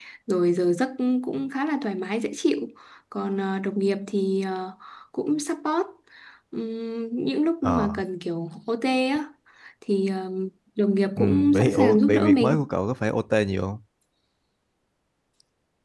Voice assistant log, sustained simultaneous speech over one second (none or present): present